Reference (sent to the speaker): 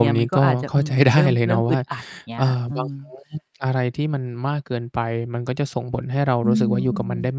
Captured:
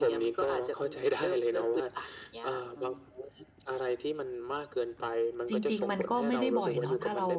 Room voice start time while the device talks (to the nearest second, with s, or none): 5 s